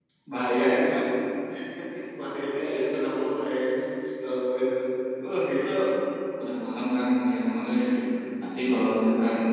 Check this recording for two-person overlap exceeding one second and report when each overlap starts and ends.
none

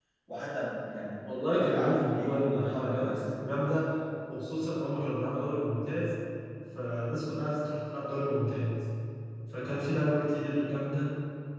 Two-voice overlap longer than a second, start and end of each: 1.3-3.2

